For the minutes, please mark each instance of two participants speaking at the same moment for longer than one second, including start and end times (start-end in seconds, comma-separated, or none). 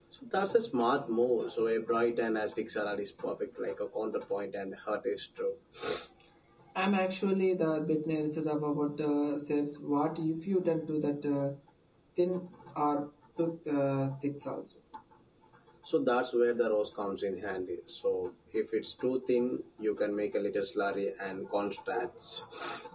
none